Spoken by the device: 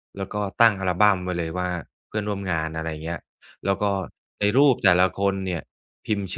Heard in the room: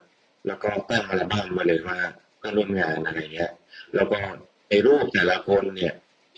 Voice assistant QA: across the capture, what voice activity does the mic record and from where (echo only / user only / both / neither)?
echo only